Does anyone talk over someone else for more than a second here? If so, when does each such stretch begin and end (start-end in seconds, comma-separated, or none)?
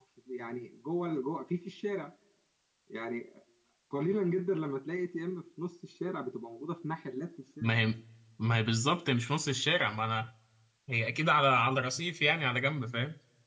none